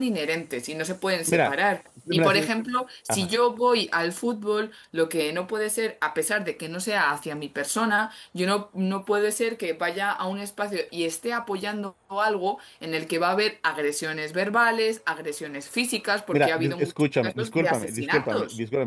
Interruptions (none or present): present